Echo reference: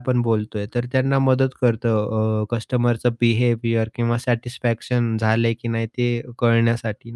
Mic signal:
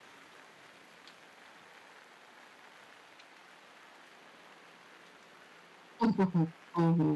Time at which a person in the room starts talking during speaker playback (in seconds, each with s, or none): 6.0 s